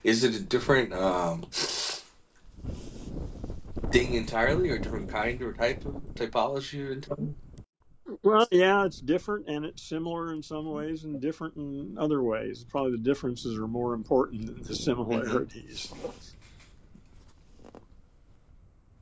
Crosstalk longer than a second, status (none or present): none